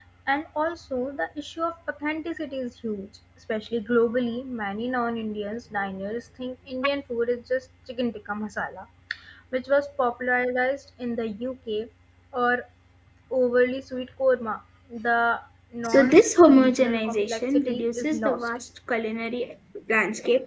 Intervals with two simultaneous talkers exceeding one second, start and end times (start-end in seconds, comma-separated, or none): 15.9-18.4